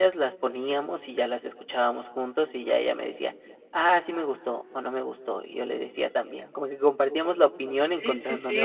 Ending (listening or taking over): taking over